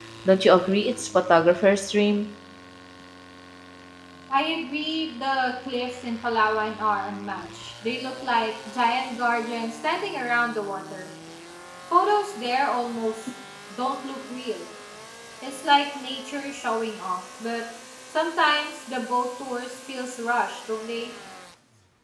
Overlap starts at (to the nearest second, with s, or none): none